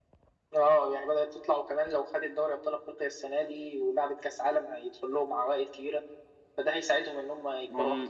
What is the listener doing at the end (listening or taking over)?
taking over